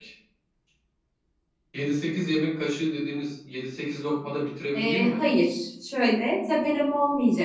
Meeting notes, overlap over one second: none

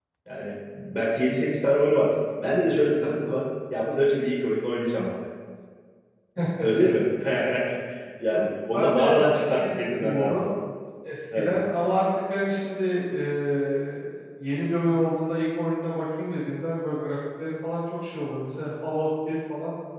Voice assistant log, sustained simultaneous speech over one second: present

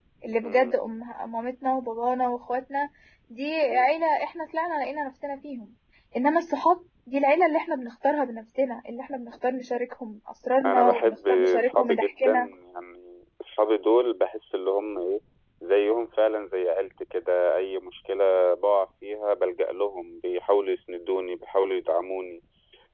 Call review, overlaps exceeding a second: present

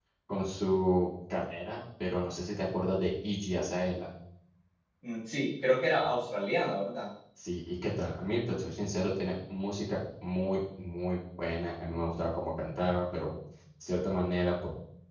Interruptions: none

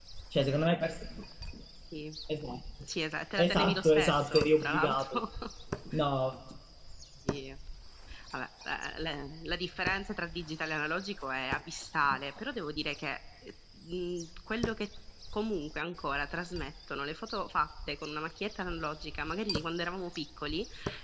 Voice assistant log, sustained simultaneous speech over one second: present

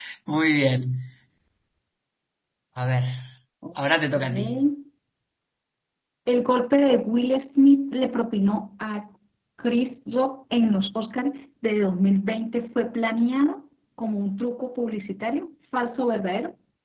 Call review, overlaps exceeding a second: none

